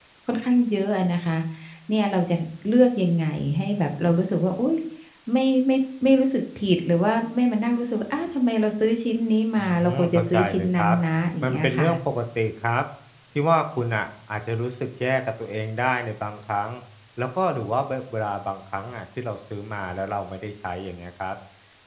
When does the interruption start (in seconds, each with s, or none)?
9.7 s